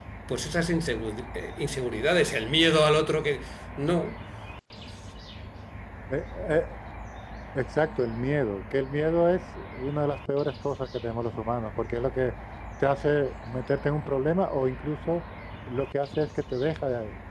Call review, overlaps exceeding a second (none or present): none